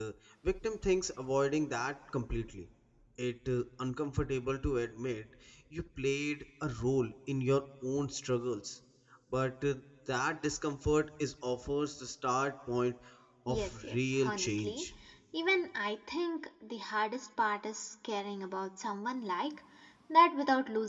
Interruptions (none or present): present